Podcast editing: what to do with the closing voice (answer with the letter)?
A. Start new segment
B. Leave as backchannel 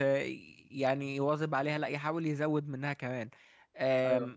B